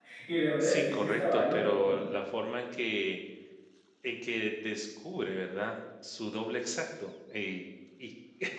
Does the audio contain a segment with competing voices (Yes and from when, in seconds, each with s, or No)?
Yes, from 0.6 s